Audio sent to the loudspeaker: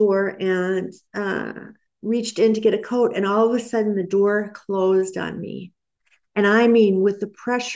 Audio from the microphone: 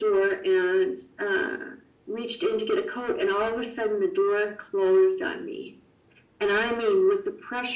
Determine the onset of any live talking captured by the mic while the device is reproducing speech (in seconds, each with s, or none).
none